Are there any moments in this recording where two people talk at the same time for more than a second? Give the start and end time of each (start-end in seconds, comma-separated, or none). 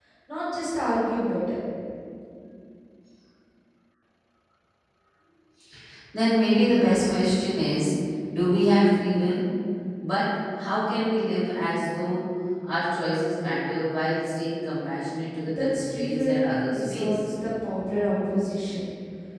15.4-17.2